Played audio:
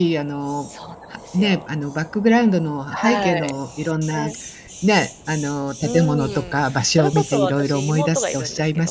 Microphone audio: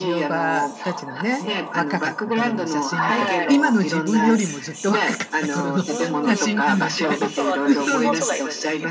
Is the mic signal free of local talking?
No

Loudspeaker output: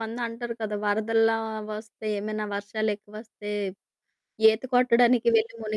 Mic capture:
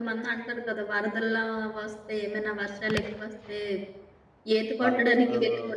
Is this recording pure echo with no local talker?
No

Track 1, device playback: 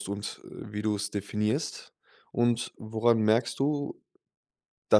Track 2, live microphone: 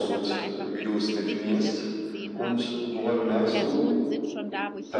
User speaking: Yes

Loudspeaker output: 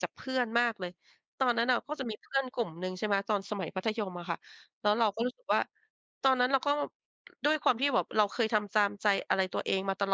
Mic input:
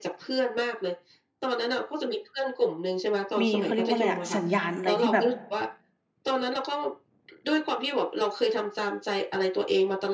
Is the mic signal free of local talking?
No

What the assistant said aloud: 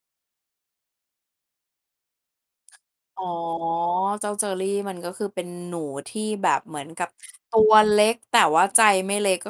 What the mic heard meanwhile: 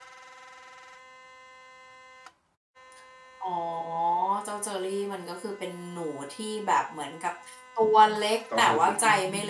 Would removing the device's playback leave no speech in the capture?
No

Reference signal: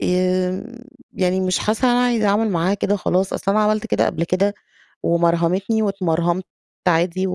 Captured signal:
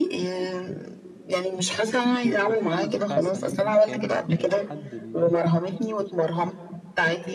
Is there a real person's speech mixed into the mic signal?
Yes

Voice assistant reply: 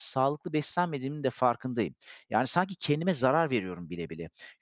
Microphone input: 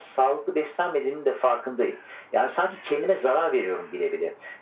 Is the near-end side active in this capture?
No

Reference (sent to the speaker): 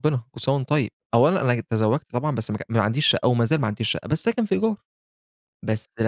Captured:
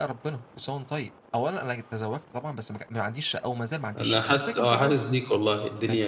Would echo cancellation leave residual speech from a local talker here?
Yes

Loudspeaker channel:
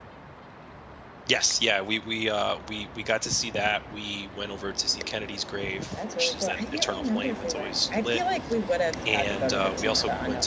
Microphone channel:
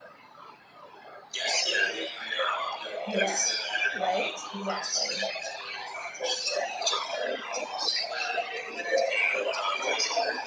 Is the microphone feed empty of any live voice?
No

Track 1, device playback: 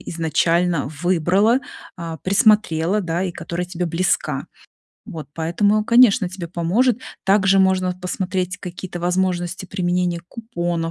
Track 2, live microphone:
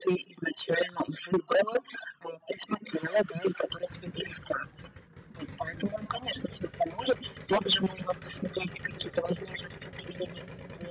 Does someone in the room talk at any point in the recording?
No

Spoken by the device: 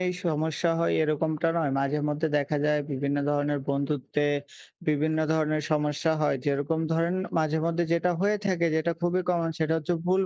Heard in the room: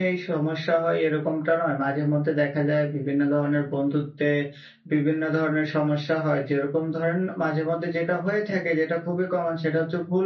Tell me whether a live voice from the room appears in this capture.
No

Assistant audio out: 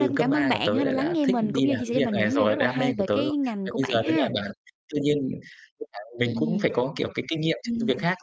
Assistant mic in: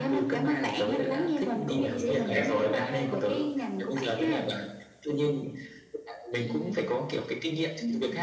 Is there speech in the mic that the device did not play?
Yes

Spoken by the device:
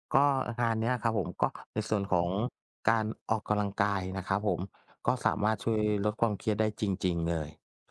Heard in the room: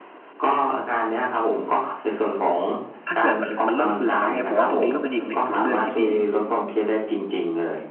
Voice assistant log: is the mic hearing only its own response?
No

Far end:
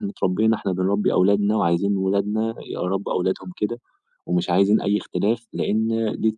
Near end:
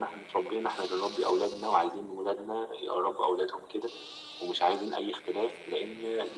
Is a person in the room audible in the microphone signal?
No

